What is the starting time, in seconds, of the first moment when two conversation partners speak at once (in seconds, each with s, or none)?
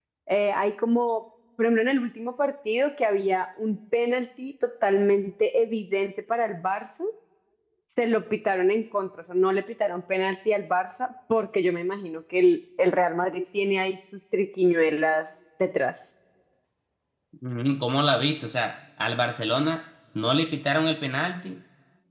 none